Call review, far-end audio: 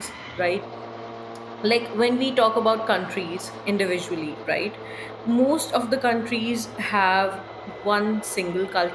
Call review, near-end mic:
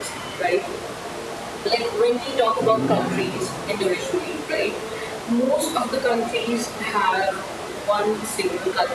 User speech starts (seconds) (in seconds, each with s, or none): 2.6 s